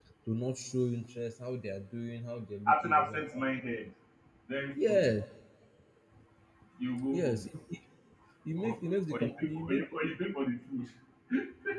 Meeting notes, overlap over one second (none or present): present